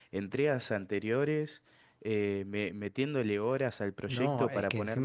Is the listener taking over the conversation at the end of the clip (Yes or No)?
Yes